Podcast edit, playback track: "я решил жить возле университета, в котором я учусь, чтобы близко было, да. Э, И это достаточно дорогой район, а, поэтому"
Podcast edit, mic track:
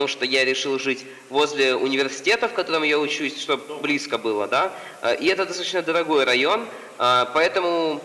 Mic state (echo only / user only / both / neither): both